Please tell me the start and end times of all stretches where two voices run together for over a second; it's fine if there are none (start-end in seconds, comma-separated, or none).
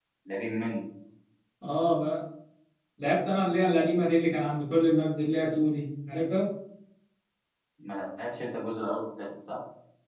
none